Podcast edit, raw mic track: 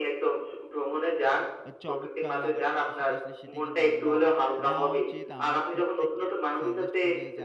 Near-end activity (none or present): present